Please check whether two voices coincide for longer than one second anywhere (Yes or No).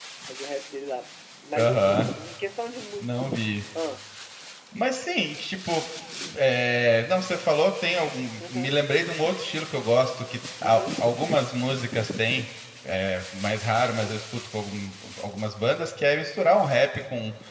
No